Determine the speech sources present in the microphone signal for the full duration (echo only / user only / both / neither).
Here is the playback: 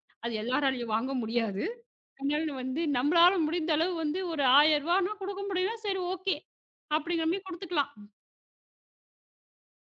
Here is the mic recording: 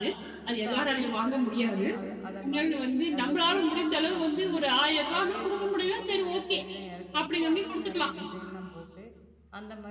both